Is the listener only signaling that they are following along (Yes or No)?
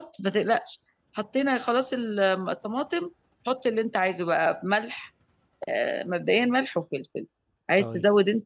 Yes